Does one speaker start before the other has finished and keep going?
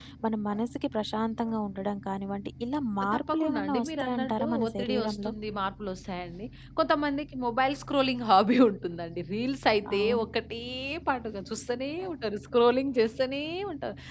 Yes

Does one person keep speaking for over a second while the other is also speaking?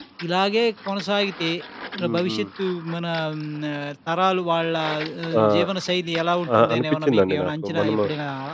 Yes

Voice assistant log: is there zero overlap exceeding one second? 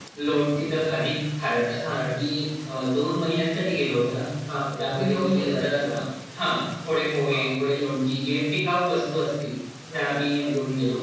No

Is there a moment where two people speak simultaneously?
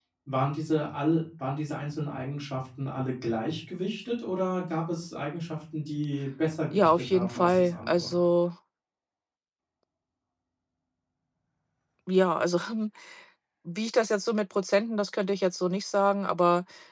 Yes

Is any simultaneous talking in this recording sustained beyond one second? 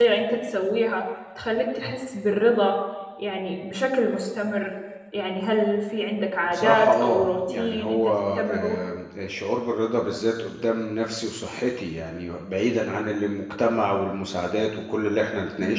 Yes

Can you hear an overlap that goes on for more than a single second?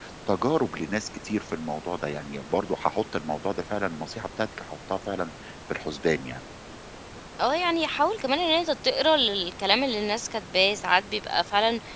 No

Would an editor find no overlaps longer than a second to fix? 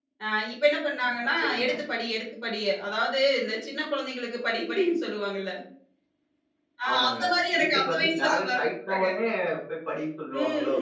No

